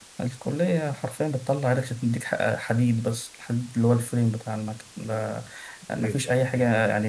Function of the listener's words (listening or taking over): listening